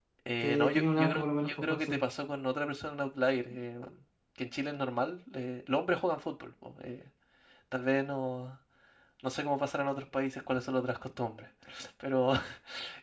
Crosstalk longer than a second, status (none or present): present